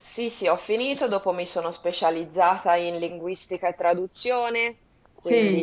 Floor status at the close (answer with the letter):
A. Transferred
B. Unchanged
B